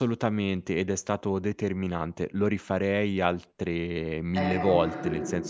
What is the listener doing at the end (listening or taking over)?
listening